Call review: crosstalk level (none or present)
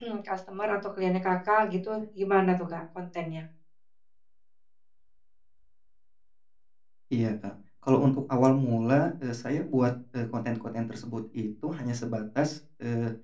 none